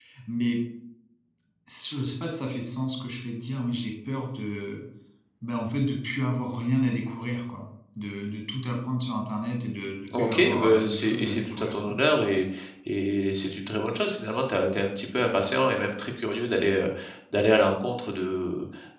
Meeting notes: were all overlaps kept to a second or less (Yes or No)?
No